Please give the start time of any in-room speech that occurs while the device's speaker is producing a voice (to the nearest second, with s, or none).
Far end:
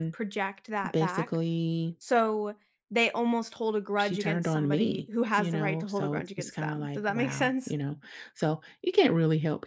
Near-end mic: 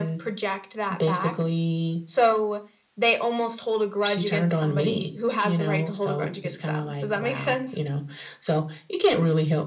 none